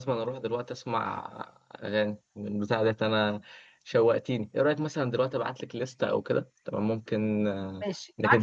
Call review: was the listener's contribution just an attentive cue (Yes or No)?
No